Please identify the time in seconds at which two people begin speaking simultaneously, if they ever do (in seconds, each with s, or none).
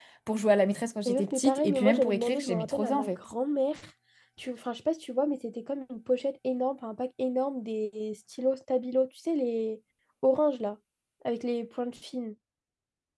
1.1 s